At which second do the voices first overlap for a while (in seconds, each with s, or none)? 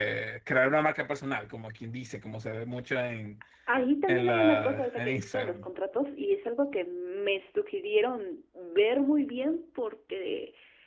4.1 s